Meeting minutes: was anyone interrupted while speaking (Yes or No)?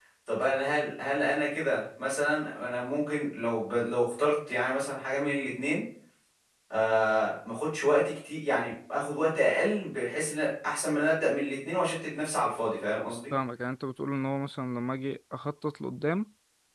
No